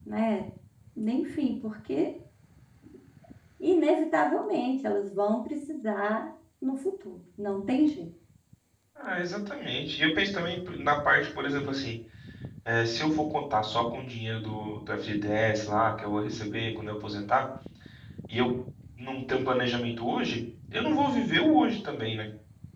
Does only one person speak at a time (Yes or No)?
Yes